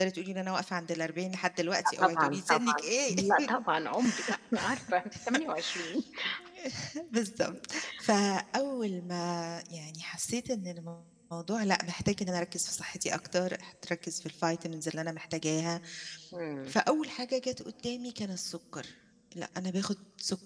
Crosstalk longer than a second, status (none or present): present